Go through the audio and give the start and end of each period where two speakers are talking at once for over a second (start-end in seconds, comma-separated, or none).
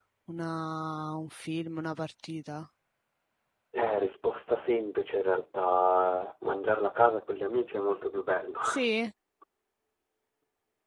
none